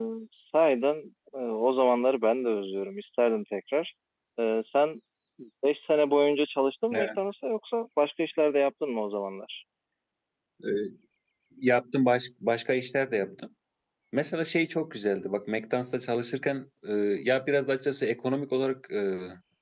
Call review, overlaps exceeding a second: none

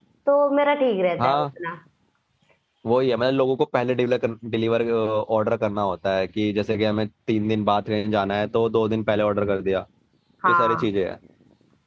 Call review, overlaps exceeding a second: none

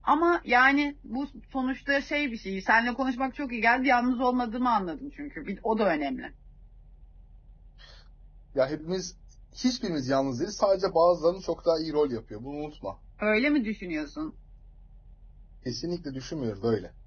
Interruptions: none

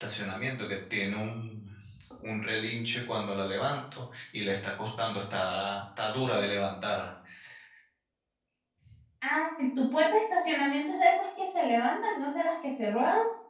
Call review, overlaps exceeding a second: none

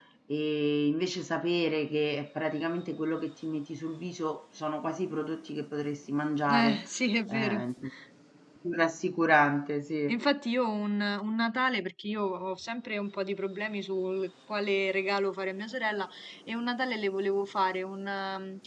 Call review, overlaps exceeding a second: none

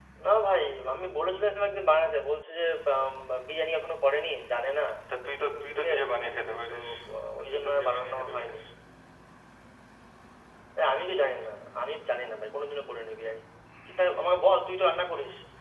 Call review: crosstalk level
present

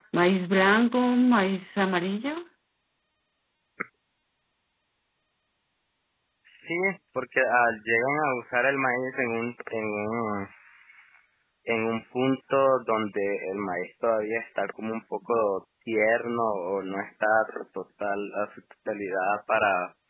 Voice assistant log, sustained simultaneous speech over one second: none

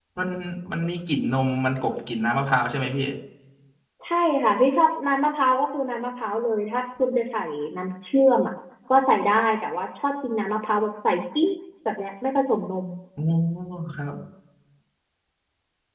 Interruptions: none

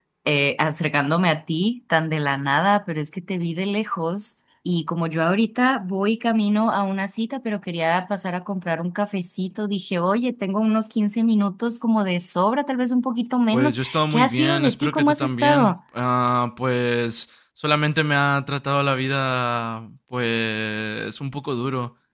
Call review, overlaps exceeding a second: present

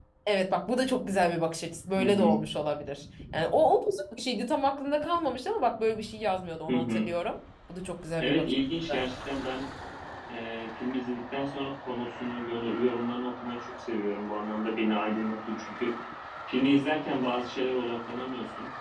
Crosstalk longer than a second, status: none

